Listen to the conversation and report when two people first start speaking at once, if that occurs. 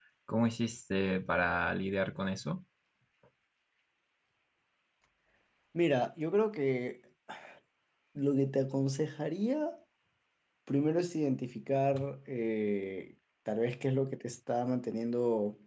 none

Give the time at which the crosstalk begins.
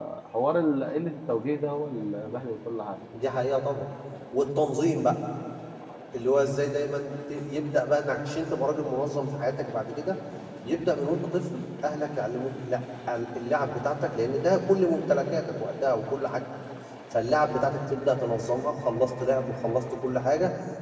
none

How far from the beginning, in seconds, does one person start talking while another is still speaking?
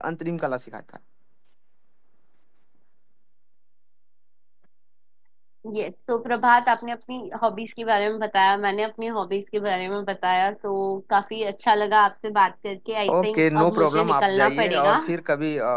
13.1 s

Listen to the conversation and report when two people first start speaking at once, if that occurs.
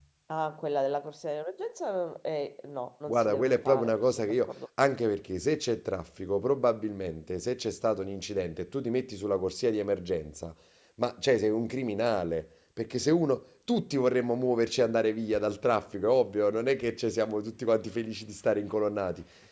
3.1 s

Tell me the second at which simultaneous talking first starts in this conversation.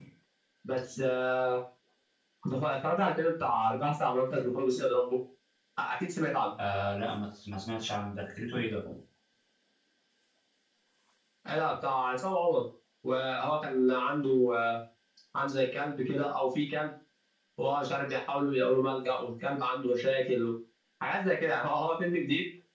none

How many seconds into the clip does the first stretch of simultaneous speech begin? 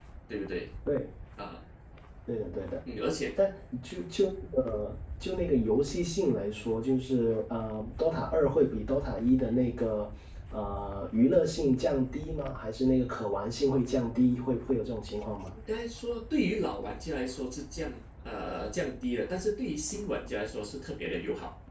none

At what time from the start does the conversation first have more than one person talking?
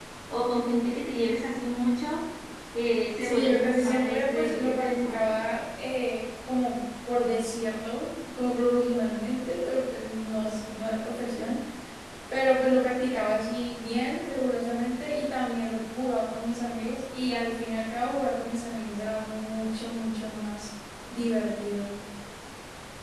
3.2 s

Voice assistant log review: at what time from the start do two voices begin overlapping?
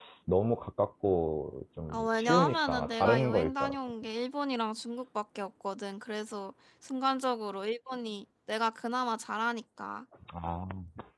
1.9 s

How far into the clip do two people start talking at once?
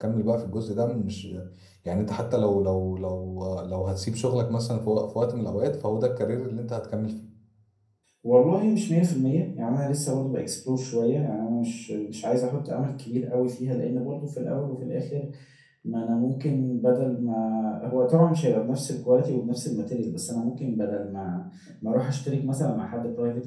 none

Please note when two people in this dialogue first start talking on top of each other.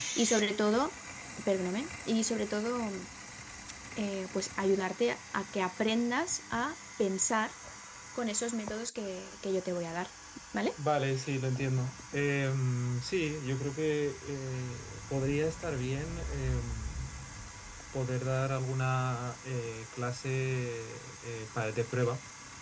none

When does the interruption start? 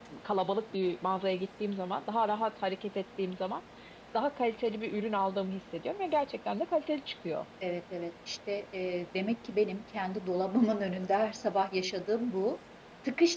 none

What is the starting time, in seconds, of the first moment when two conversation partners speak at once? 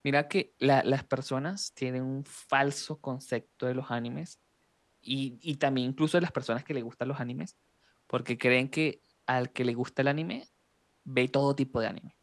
none

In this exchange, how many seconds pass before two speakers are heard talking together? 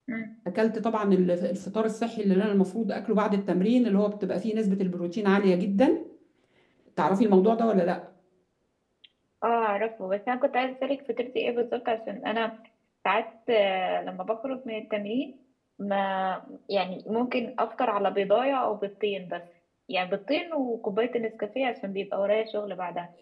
none

